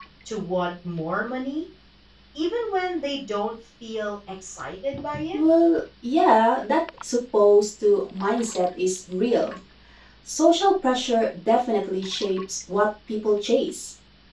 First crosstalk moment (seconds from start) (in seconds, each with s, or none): none